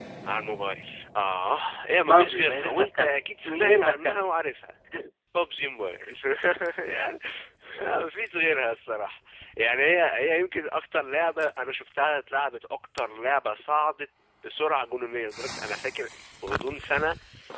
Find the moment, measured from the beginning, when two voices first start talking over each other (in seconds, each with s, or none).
2.0 s